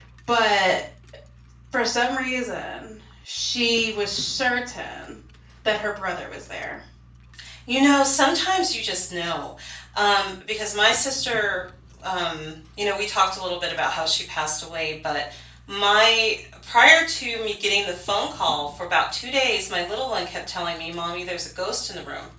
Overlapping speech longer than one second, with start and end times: none

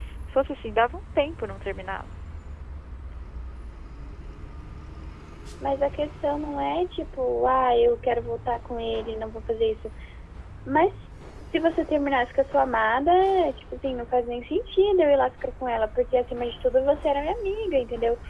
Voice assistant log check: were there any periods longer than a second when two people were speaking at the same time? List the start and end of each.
none

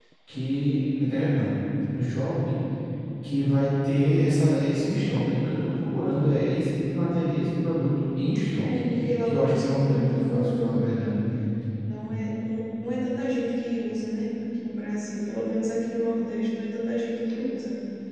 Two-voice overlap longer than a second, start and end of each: 9.2-10.8

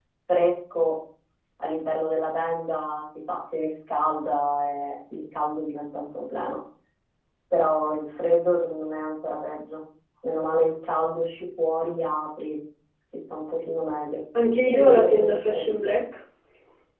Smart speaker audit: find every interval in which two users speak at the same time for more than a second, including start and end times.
14.7-15.9

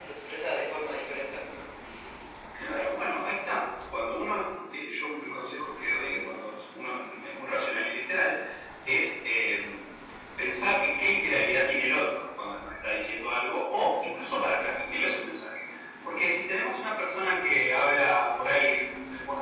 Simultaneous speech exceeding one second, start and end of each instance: none

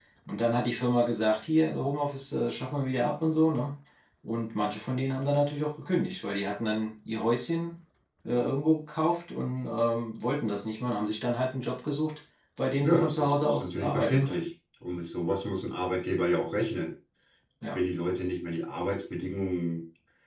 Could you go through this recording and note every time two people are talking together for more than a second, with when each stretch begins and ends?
12.8-14.4

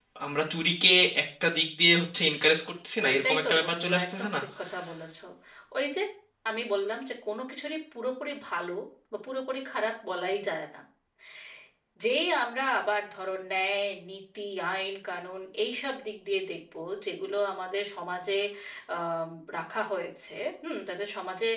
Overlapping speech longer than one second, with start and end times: 3.1-4.4

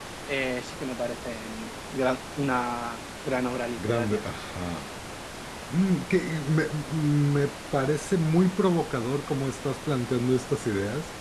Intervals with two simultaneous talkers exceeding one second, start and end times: none

